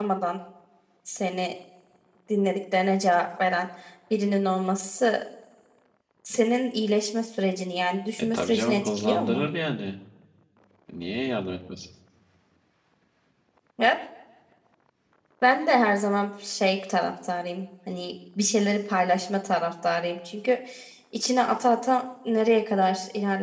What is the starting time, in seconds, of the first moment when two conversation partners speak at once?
8.2 s

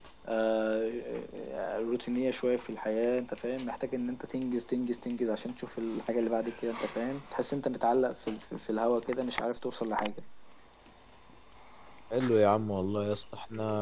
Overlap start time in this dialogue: none

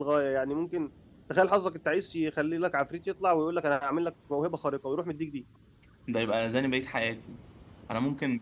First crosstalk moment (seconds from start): none

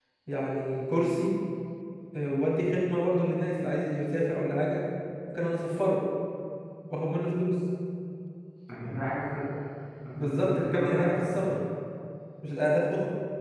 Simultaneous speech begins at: 10.2 s

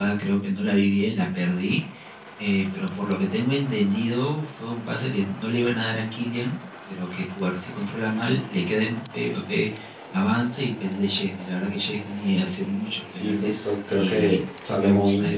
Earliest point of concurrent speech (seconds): 13.1 s

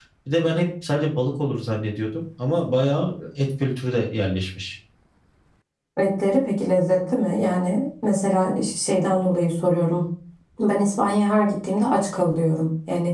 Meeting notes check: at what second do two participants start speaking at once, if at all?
none

